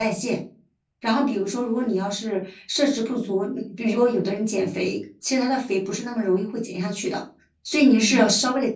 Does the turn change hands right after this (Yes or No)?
No